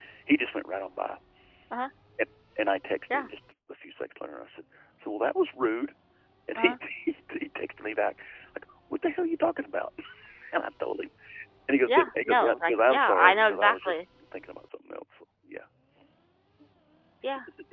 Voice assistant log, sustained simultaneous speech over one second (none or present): present